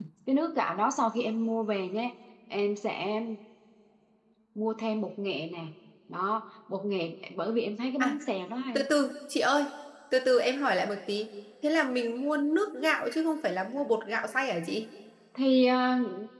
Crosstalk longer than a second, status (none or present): none